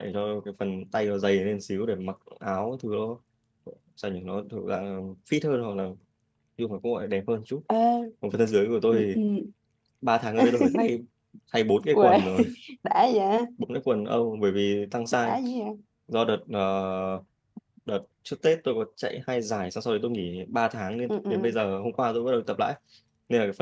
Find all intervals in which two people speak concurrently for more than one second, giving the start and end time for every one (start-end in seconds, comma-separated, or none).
none